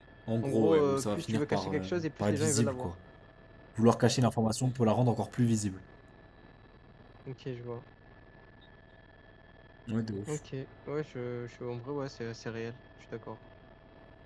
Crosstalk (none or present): present